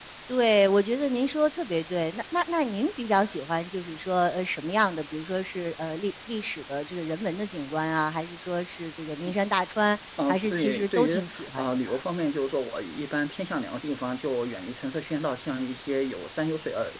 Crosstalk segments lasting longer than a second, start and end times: 10.3-12.0

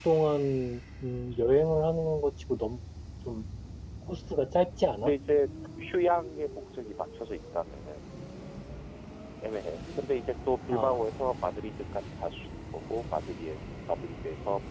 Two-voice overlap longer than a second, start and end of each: none

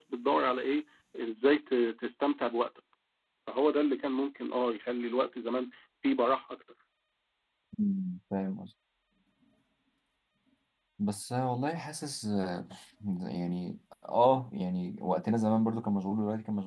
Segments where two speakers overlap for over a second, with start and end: none

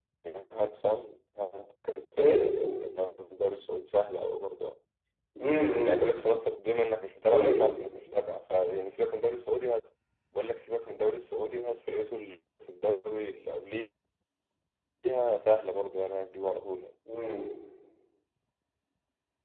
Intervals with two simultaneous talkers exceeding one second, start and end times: none

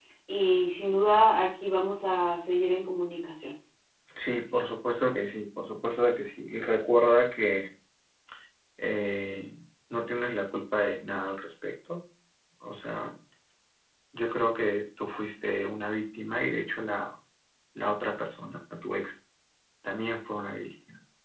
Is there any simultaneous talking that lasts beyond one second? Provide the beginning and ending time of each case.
none

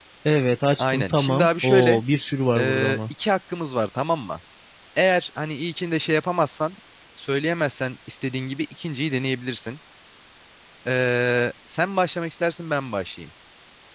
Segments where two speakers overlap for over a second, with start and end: 0.8-2.0

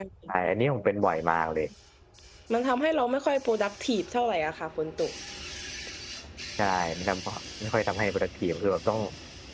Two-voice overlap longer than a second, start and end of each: none

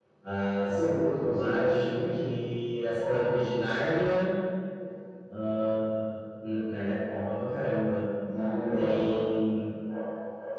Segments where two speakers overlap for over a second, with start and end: 0.7-2.3

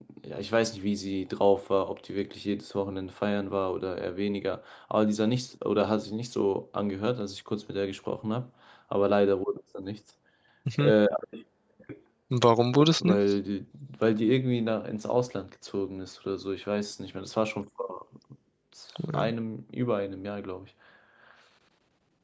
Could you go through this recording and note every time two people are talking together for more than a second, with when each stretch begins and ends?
none

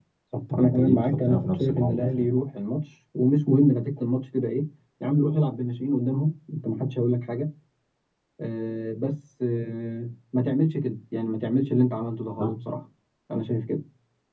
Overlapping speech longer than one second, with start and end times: 0.5-2.3

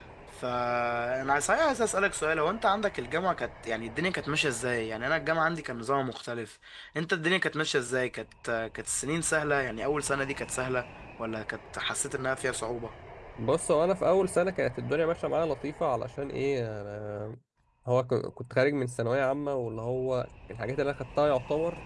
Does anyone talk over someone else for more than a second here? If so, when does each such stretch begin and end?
none

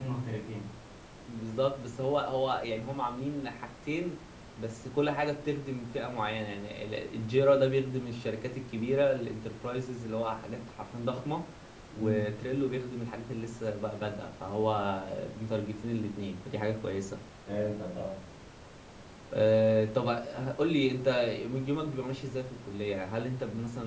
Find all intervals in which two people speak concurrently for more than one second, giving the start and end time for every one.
none

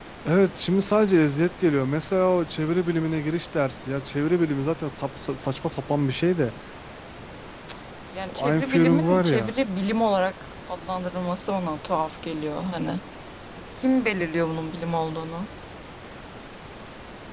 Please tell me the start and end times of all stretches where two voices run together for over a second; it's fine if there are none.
8.3-9.5

